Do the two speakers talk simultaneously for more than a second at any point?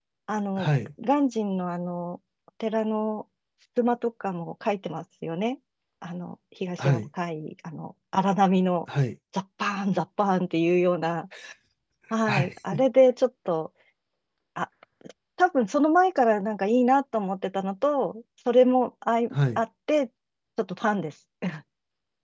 No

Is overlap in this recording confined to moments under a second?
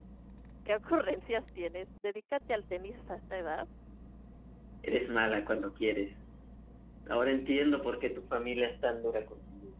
Yes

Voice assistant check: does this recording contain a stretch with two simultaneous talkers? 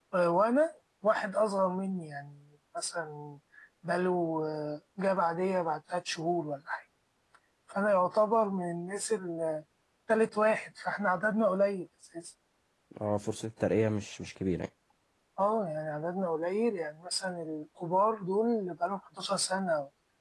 No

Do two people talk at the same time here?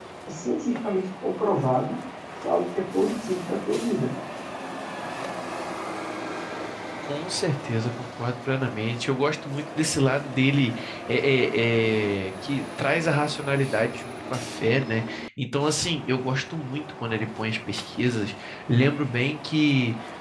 No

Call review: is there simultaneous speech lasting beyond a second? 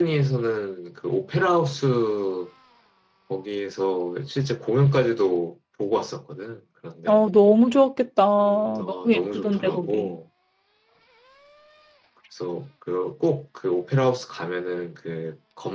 Yes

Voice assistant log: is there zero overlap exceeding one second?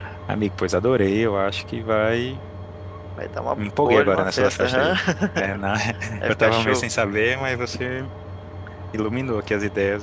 No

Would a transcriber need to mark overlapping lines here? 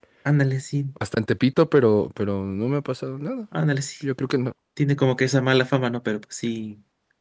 No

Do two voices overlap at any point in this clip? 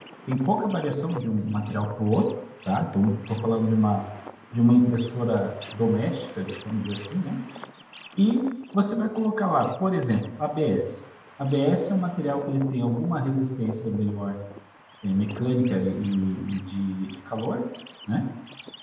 No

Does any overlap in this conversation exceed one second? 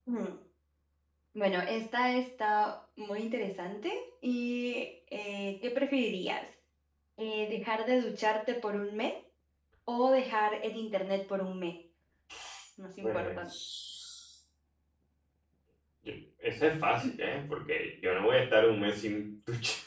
No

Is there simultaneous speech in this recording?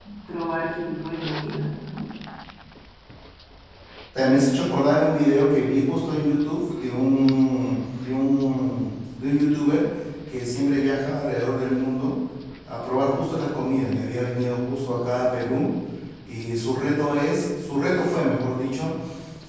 No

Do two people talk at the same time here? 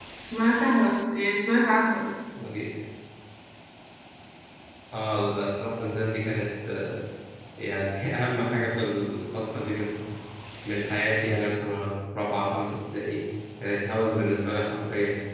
No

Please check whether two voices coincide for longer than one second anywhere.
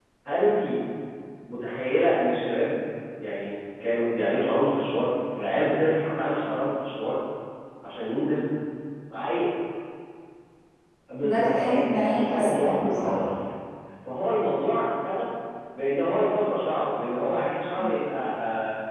Yes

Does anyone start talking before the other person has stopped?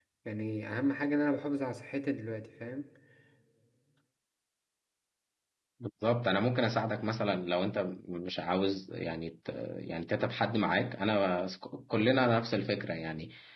No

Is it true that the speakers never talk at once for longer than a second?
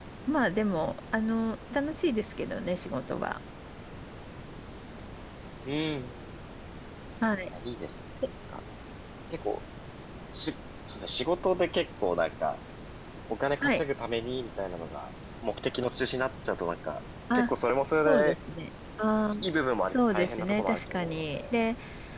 No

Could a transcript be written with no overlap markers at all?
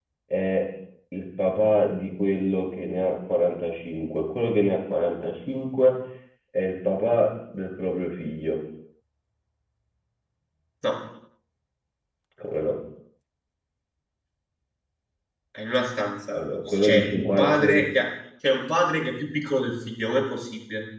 No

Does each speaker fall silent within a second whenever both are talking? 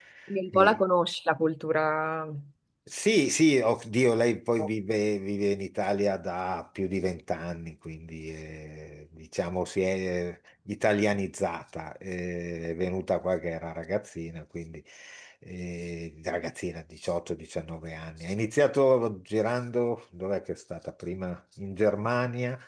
Yes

